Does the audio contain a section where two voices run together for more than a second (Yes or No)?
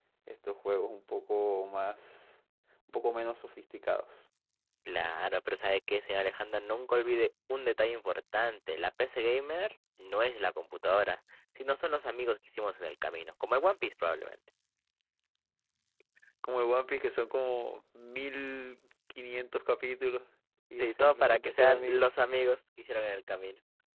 Yes